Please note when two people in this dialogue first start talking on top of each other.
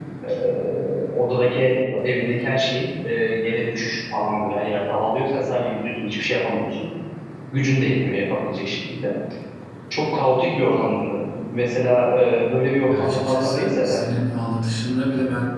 12.8 s

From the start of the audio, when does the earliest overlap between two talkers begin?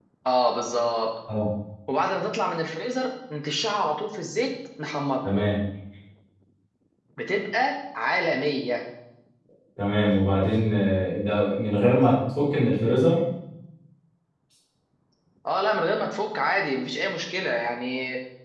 none

